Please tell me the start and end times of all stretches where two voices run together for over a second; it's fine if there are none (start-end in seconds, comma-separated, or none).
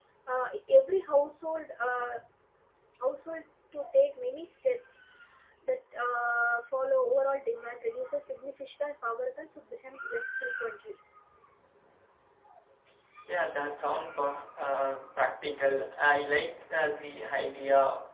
none